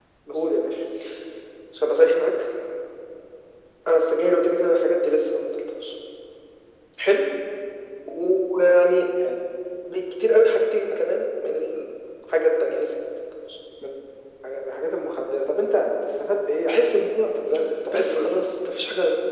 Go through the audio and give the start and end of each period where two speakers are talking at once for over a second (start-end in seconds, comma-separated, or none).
none